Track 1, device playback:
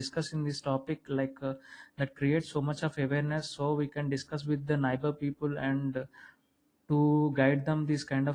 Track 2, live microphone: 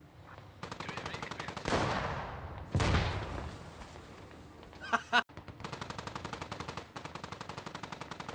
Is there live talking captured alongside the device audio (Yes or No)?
No